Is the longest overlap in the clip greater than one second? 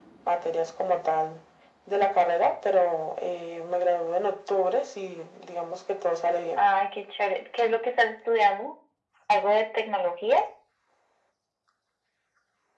No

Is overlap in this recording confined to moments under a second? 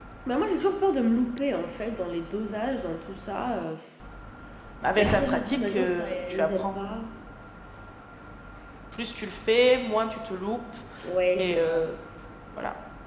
No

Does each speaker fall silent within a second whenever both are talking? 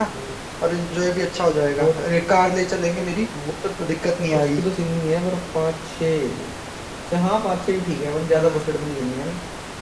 Yes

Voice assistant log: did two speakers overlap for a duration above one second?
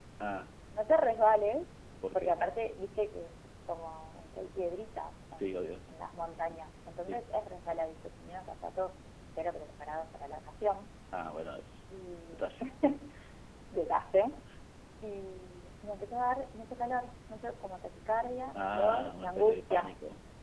Yes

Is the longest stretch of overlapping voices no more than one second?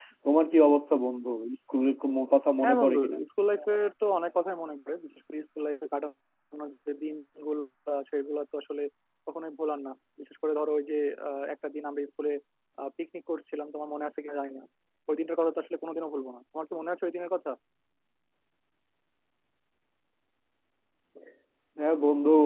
Yes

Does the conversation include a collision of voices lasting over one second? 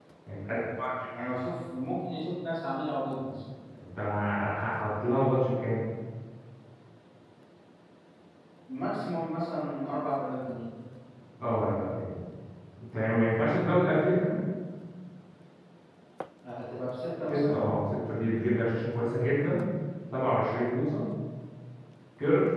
No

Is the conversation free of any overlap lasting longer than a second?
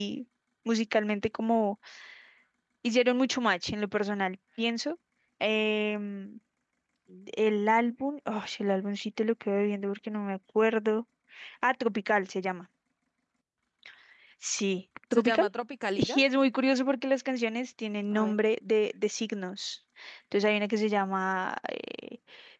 Yes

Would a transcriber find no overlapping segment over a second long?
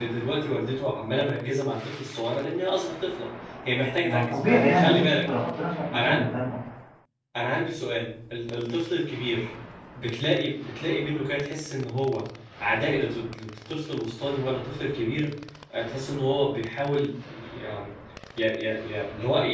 No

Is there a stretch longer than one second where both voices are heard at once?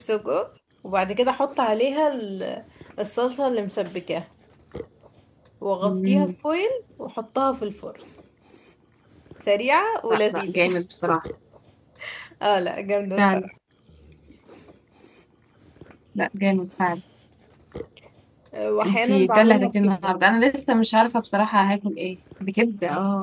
Yes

